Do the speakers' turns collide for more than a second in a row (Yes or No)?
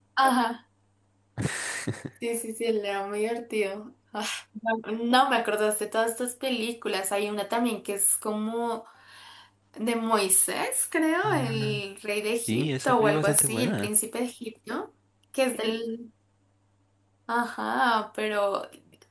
Yes